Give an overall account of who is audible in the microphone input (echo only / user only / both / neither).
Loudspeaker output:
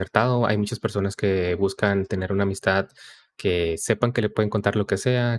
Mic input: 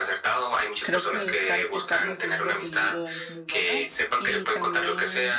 both